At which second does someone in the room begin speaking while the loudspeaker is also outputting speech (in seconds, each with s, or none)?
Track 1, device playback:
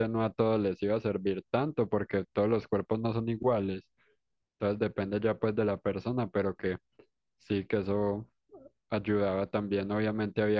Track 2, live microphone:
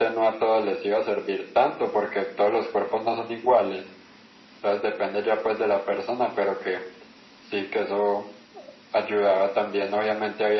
none